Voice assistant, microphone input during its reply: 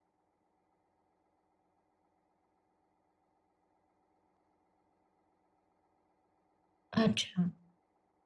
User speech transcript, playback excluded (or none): अच्छा.